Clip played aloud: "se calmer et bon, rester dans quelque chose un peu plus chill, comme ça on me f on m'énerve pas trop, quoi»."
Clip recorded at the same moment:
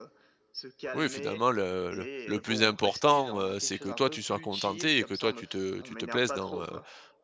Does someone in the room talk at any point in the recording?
Yes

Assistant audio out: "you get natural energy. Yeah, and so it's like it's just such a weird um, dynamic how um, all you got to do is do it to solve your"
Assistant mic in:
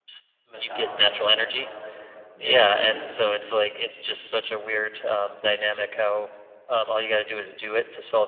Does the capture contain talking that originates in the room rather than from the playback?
Yes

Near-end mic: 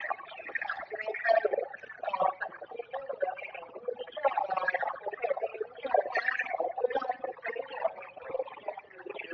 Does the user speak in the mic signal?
No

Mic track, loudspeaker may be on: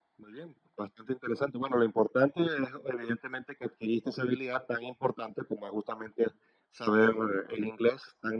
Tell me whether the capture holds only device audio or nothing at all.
Yes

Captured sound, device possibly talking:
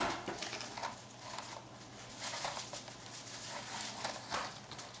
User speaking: No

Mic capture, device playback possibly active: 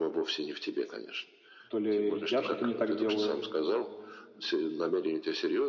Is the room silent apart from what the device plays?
No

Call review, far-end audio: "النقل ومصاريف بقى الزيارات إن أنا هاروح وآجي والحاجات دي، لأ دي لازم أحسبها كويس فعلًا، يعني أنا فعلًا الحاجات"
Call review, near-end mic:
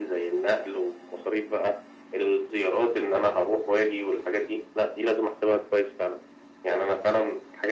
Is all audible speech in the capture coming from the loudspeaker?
Yes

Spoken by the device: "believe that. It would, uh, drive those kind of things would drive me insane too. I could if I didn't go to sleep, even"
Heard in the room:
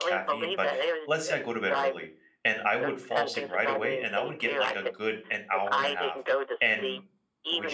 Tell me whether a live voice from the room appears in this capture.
Yes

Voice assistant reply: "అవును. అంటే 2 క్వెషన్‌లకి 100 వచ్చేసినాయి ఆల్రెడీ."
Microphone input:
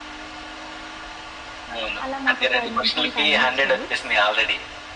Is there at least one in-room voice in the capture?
Yes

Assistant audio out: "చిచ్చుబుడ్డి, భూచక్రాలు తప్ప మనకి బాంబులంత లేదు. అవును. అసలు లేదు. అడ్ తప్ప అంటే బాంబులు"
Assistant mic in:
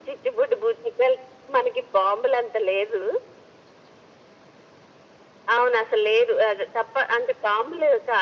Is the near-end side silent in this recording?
Yes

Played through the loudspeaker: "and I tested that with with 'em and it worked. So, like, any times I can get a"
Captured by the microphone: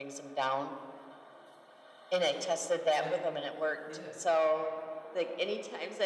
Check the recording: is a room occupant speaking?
Yes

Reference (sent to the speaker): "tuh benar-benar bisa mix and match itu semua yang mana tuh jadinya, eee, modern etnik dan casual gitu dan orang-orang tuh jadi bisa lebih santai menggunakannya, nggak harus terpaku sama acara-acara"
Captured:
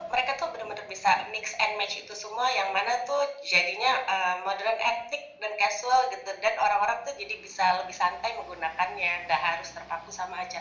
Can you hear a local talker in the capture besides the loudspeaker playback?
No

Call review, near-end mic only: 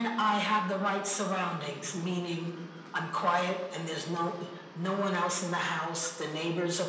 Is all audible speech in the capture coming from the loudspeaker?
Yes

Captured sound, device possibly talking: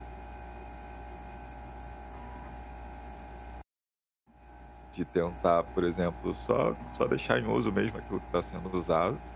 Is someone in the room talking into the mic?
Yes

